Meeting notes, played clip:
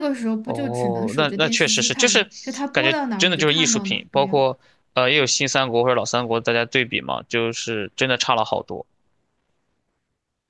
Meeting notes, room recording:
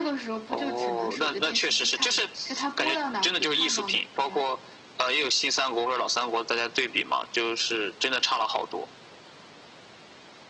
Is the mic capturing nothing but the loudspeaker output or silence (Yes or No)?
Yes